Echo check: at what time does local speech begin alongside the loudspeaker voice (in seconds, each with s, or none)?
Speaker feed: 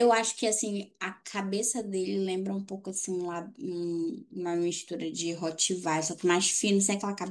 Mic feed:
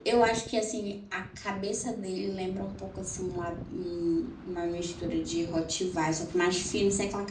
none